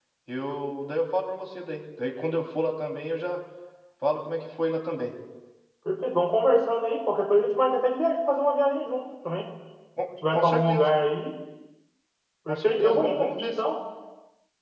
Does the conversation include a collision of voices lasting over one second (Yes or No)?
Yes